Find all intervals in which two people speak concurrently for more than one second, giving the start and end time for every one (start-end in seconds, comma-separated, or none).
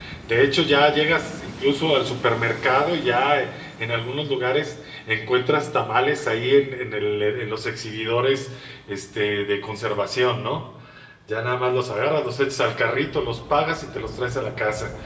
none